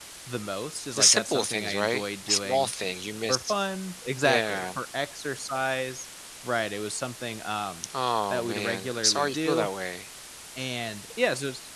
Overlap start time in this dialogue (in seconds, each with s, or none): 1.0 s